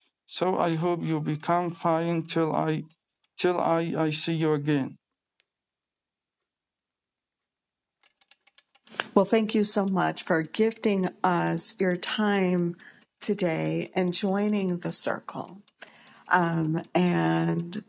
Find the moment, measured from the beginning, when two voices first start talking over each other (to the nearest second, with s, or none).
none